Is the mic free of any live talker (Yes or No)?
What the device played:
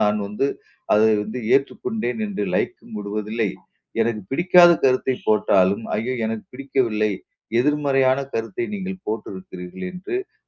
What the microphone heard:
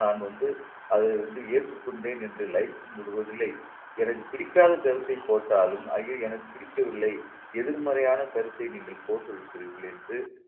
Yes